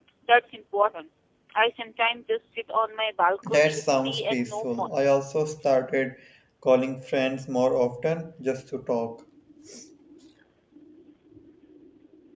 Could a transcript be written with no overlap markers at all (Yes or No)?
No